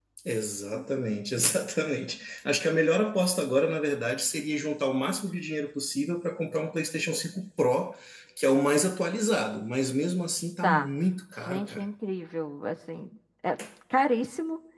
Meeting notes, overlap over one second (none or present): none